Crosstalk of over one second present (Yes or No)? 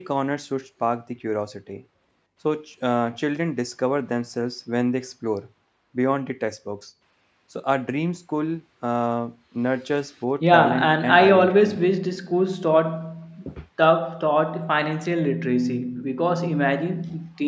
Yes